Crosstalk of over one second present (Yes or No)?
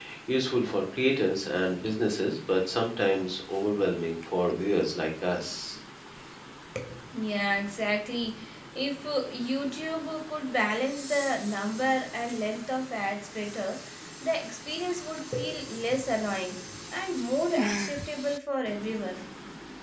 No